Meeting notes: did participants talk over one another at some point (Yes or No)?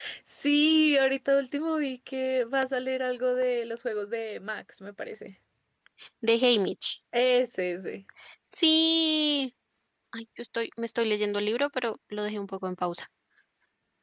No